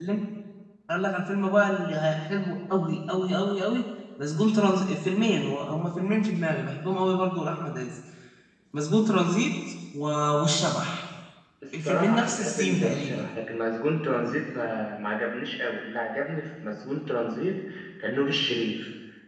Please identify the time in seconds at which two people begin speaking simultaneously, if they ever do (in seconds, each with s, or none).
11.8 s